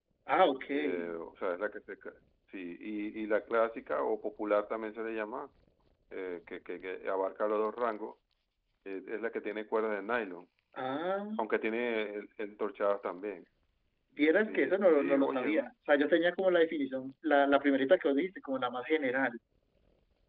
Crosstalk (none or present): present